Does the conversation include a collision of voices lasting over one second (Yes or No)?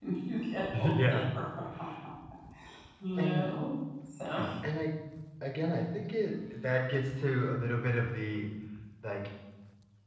No